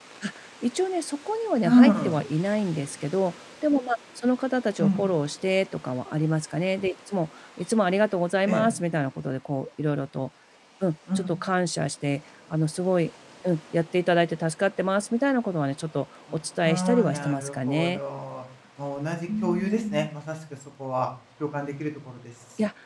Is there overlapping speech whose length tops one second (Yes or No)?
Yes